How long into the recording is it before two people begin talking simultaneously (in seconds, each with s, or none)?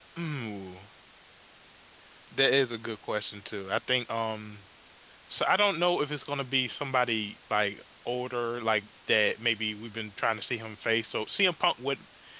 none